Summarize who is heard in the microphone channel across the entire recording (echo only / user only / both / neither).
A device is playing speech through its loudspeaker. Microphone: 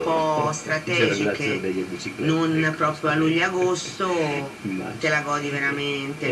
echo only